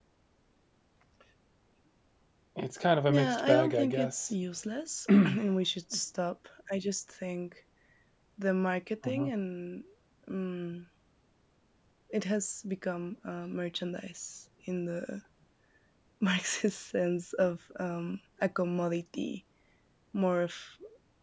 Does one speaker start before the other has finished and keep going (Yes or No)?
Yes